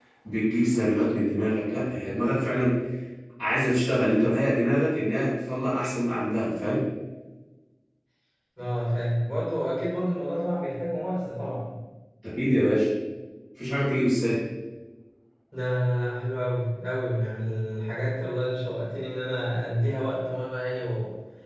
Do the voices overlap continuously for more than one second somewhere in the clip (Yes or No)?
No